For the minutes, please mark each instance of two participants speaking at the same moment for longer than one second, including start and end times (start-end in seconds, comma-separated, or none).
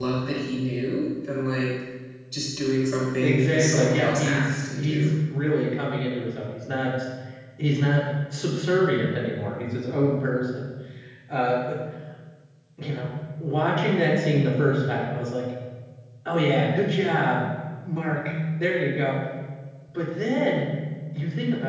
3.2-5.1